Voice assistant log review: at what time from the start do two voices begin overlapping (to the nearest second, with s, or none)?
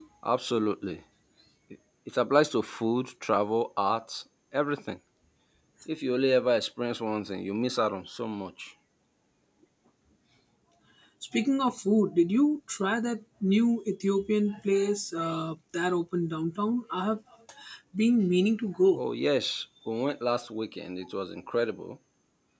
none